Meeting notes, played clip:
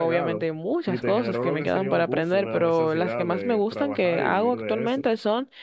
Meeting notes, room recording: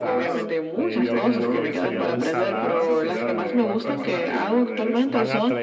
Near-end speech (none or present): present